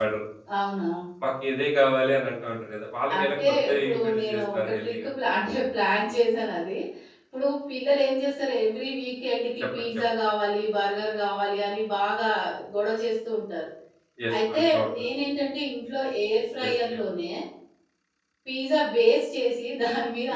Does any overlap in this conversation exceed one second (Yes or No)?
Yes